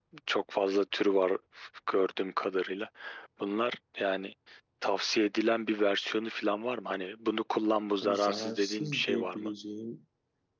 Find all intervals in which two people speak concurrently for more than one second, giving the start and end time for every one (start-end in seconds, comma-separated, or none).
8.0-9.5